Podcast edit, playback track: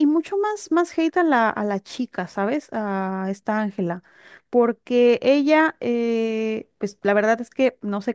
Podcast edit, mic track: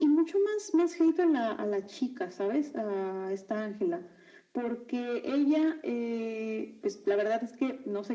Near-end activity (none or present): none